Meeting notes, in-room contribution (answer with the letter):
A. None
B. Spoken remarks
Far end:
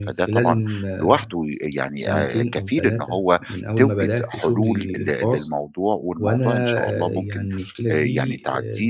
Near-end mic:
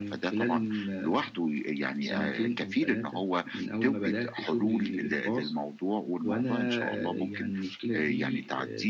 A